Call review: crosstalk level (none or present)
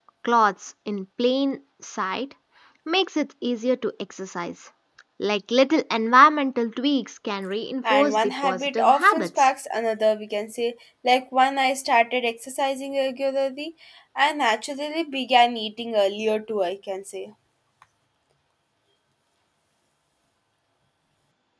present